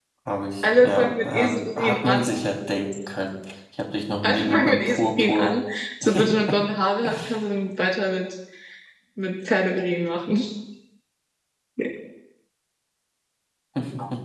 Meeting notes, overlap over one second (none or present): present